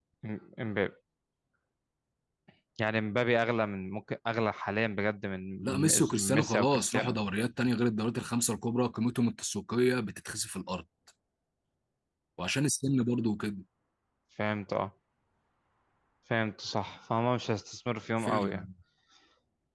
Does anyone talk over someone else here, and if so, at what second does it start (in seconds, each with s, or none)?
5.6 s